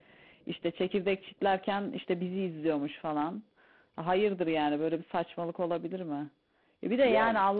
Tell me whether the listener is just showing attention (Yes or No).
Yes